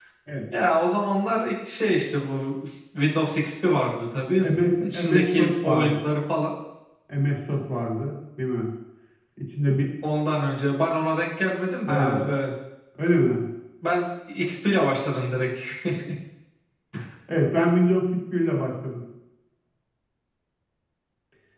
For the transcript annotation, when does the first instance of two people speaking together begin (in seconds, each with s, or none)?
4.8 s